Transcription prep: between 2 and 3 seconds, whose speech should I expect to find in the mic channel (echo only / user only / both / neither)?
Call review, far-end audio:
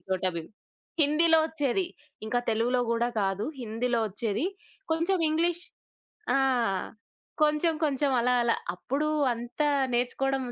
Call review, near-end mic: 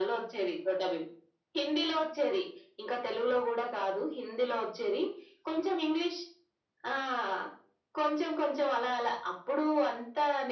echo only